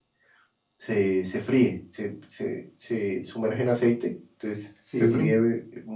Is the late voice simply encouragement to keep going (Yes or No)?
Yes